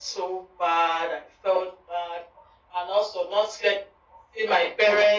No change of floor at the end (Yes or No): Yes